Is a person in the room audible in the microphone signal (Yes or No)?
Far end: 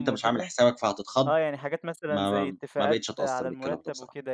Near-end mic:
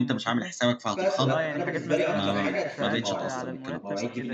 Yes